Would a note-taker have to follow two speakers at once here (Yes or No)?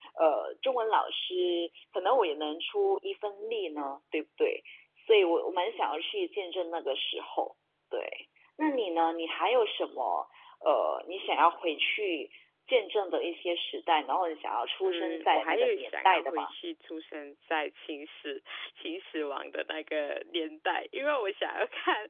Yes